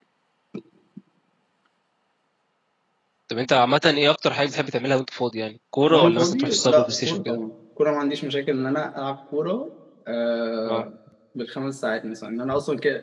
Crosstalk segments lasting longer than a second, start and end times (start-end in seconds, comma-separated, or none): 5.9-7.4